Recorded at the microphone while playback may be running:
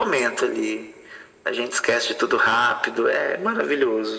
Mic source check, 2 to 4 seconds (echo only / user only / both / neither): echo only